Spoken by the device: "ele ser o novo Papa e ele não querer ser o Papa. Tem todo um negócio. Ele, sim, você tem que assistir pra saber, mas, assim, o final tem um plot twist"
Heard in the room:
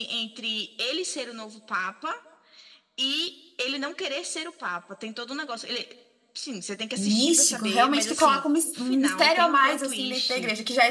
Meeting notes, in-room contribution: present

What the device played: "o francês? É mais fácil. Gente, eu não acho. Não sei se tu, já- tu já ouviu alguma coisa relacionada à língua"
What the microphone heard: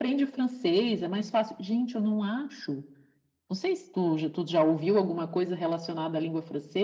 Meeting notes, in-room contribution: none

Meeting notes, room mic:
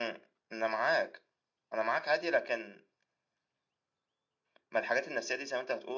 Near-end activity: none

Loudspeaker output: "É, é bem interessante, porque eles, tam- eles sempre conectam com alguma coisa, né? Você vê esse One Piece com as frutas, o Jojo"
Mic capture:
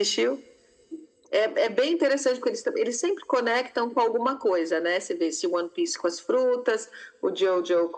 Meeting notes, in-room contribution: none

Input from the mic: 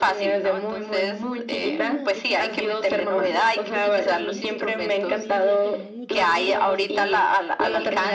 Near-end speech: present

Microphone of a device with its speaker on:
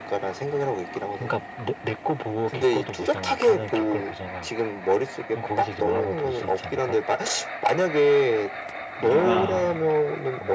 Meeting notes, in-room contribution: present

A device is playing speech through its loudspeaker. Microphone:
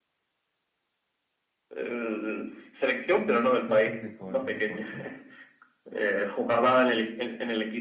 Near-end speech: present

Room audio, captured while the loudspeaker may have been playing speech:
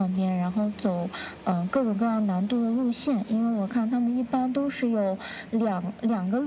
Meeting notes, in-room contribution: none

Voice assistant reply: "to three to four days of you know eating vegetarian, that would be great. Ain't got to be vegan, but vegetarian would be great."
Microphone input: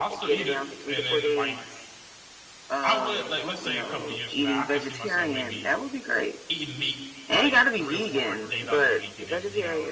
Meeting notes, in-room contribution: present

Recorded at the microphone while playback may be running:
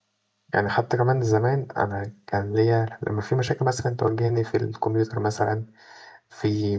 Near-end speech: present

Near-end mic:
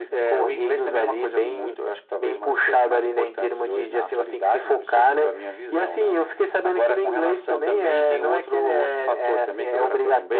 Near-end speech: none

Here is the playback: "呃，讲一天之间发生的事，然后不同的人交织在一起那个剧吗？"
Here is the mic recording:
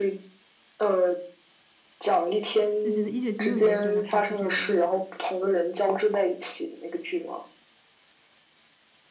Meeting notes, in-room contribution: present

